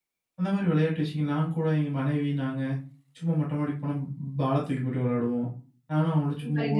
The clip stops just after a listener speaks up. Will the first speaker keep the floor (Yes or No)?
Yes